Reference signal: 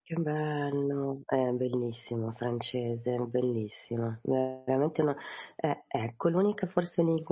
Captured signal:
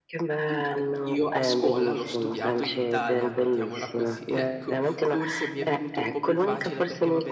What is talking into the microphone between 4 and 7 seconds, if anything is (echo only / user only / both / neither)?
both